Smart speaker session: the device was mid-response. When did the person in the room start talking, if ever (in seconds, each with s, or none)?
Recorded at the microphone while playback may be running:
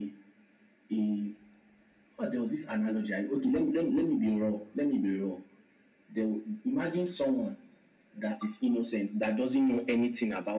none